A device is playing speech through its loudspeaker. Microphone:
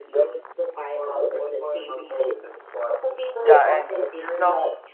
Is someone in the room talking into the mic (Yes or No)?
Yes